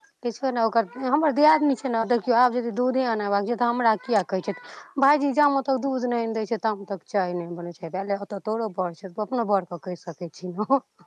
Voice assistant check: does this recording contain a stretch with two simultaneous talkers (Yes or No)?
No